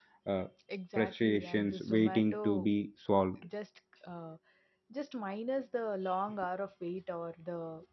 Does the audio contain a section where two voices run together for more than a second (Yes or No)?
Yes